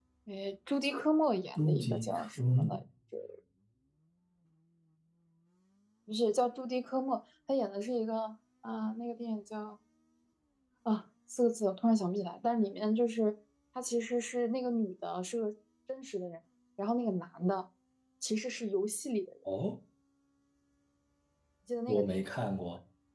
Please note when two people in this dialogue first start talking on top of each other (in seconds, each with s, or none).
1.6 s